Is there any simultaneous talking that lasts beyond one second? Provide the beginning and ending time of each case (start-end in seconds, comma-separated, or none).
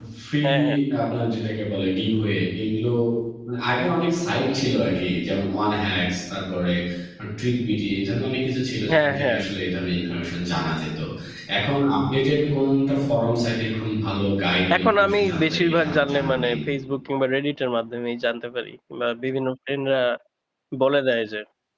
14.8-16.6